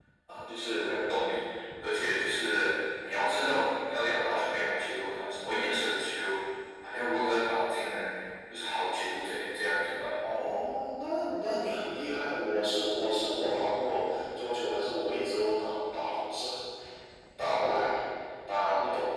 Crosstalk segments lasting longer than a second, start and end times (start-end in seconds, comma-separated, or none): none